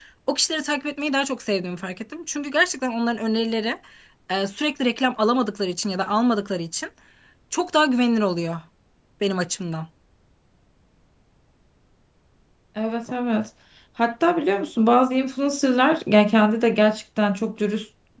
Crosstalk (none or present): none